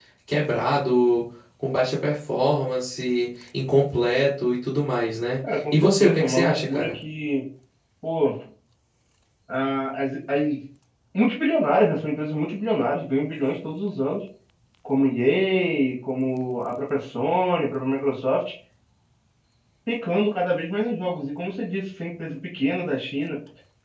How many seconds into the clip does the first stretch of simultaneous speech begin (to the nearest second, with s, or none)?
6 s